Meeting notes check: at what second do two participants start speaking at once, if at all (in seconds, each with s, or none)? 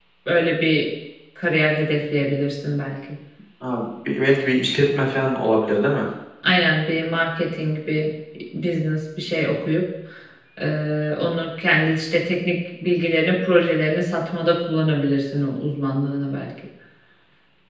none